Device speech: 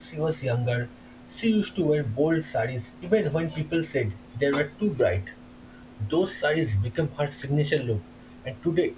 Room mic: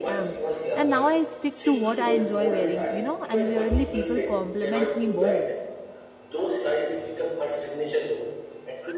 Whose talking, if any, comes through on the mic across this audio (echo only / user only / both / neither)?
both